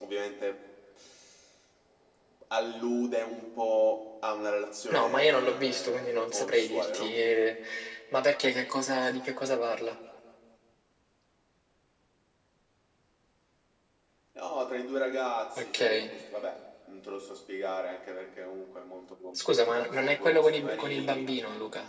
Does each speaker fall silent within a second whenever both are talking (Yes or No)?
No